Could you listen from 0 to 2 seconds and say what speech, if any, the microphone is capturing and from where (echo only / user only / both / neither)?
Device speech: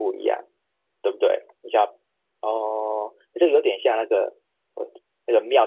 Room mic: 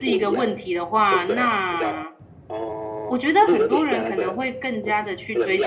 both